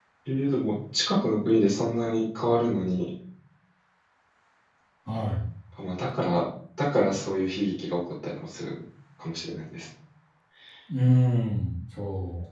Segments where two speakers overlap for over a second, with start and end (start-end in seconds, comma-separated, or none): none